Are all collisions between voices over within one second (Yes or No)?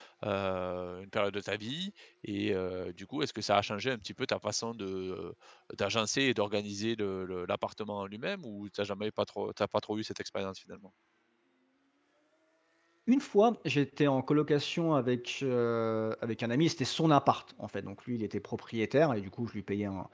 Yes